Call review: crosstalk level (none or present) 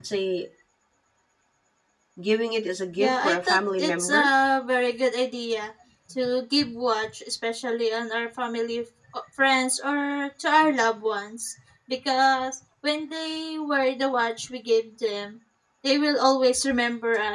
present